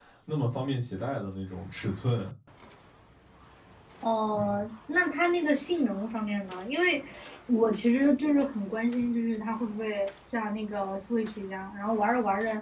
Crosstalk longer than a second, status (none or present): none